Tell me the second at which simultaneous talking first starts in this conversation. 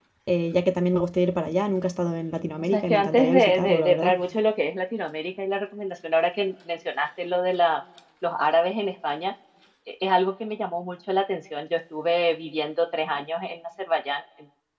3 s

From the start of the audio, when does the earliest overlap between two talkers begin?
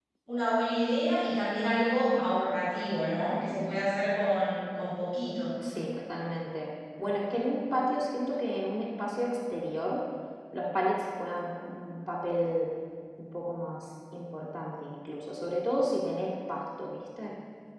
none

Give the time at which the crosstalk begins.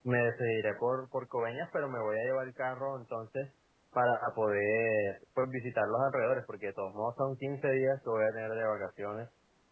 none

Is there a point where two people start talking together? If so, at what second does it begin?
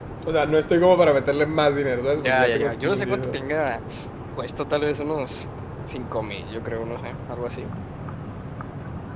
2 s

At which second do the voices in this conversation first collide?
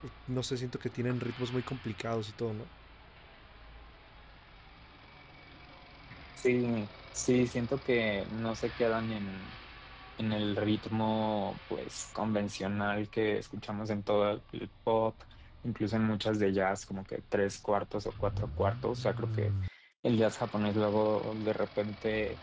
none

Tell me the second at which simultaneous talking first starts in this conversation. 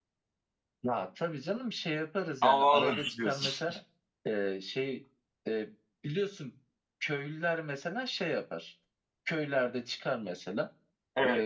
2 s

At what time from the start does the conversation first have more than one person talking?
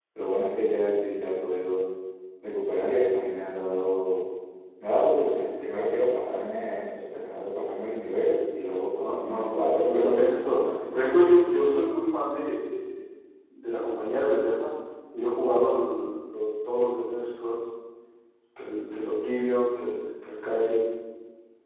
9 s

